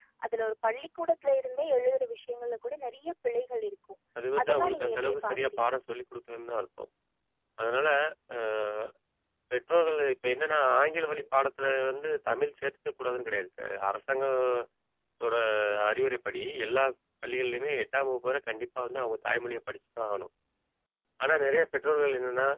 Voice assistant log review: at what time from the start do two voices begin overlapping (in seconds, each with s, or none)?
4.4 s